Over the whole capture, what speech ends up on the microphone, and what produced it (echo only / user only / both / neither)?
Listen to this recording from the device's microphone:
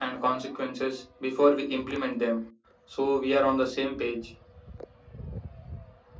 echo only